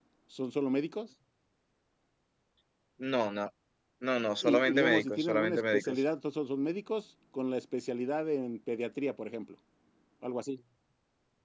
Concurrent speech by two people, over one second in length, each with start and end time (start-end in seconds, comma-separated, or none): 4.4-6.0